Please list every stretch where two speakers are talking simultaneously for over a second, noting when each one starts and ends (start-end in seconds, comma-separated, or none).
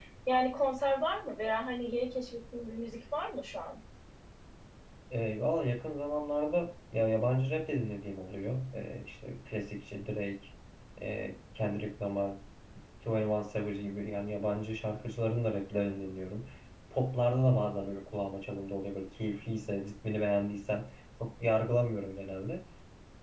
none